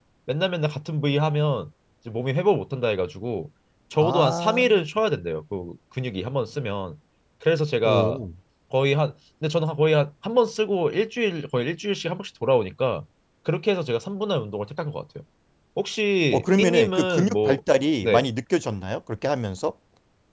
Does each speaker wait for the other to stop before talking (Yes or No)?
No